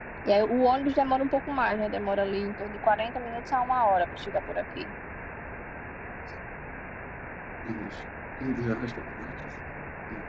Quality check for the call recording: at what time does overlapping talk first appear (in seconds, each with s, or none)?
none